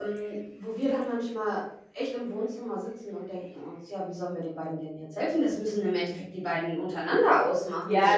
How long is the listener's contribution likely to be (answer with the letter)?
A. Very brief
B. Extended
B